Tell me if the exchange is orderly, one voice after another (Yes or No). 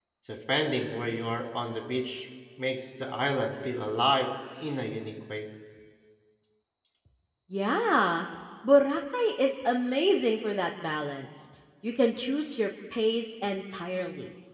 Yes